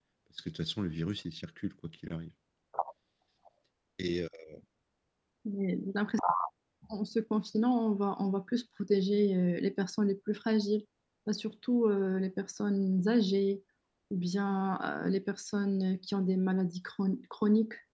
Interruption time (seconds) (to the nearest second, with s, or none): none